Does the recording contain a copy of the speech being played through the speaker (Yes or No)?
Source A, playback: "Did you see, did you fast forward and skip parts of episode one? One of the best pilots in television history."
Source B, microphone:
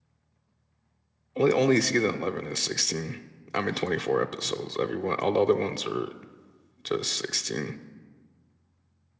No